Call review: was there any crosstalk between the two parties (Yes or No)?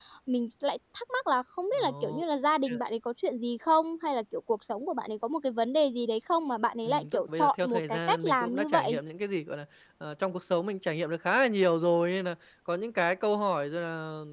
Yes